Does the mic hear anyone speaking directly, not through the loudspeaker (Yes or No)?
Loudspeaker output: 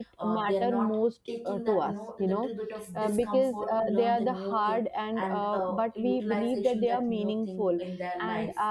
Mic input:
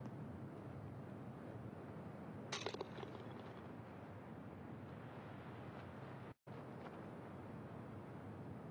No